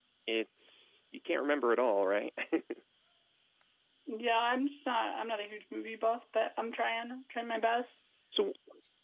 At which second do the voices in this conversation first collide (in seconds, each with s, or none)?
none